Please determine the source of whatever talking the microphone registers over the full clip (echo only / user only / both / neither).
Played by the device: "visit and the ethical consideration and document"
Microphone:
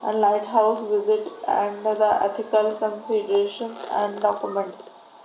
echo only